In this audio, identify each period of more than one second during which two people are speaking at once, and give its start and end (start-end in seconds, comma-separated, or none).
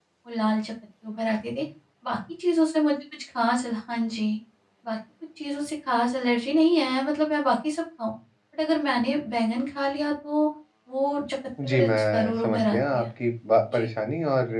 11.7-13.0